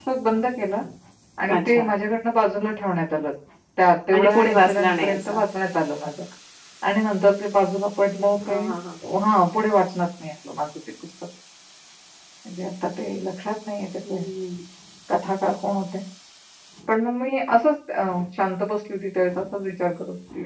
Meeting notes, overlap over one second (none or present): present